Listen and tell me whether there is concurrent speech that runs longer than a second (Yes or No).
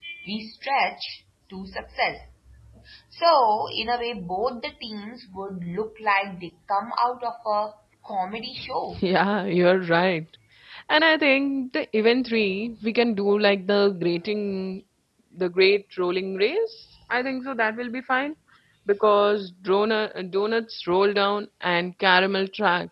No